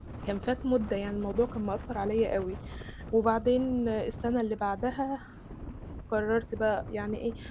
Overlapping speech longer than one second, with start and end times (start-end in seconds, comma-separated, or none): none